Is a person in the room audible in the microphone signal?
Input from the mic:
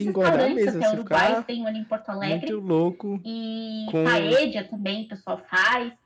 Yes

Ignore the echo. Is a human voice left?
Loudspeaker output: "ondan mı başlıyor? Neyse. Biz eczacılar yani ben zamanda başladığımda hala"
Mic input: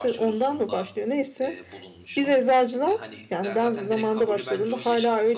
Yes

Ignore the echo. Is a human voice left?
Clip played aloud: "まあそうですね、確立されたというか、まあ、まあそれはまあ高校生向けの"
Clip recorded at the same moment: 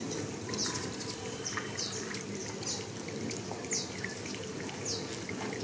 No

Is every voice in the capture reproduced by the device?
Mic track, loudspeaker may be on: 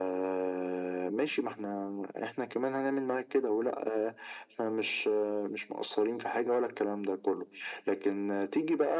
Yes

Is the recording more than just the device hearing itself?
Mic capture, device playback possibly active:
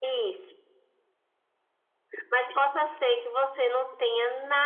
No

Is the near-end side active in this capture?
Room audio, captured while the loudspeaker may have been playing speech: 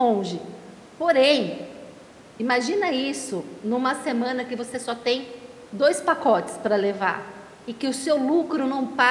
Yes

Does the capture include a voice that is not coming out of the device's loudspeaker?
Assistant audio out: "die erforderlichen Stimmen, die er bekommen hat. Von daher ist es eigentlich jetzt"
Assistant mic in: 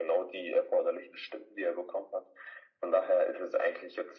No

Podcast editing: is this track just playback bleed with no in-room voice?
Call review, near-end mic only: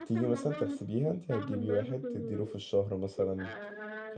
No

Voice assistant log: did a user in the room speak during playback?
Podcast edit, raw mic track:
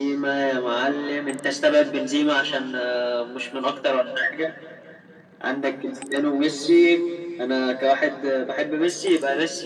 No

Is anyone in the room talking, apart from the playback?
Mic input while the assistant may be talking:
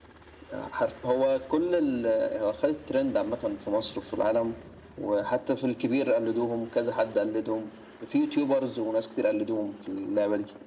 No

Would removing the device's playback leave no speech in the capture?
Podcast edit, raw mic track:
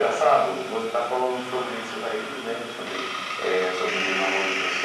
Yes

